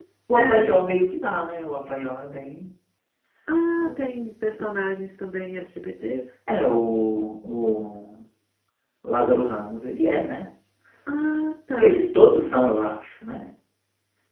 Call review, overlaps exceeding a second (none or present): none